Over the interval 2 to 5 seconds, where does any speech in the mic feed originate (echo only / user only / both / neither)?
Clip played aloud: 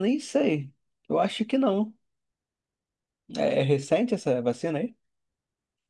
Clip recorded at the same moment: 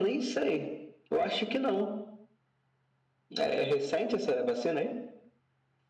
echo only